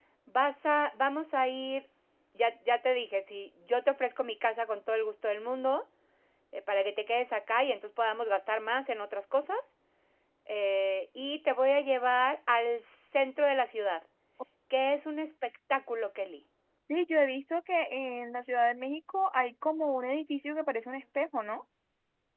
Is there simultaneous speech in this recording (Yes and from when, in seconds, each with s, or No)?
No